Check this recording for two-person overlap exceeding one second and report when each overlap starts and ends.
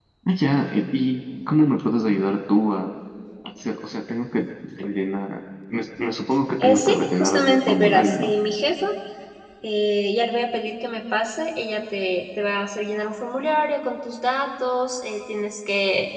6.6-8.3

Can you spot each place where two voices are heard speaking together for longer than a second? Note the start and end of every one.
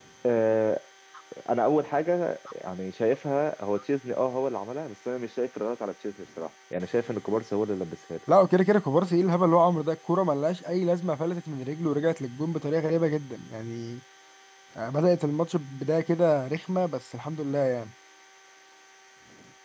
none

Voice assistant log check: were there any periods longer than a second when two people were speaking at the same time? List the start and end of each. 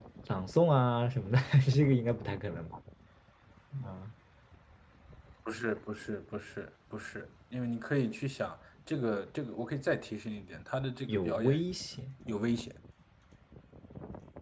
none

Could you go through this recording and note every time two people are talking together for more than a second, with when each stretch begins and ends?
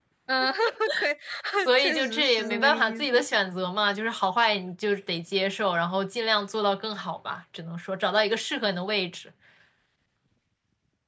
1.8-3.2

